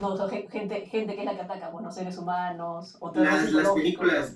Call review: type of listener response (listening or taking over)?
taking over